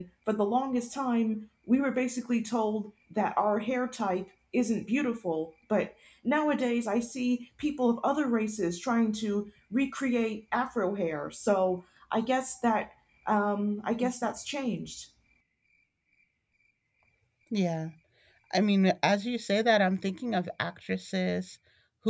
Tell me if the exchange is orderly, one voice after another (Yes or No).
Yes